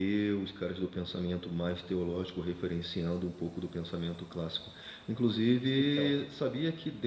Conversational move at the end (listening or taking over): listening